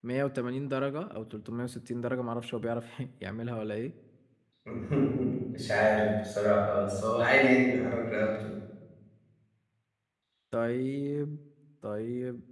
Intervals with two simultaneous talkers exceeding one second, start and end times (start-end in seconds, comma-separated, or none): none